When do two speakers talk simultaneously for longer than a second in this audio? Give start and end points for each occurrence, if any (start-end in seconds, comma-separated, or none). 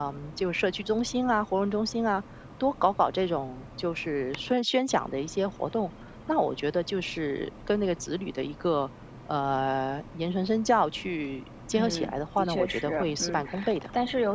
11.7-13.4